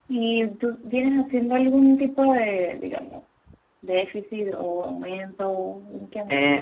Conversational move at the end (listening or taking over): taking over